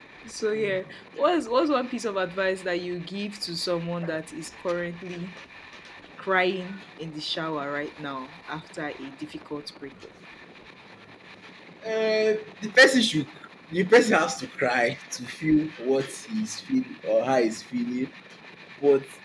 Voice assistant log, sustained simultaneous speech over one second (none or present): none